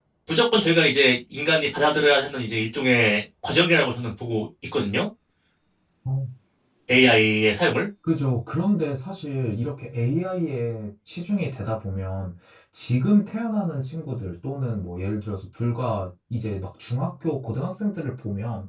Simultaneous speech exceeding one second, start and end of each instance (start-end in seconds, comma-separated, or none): none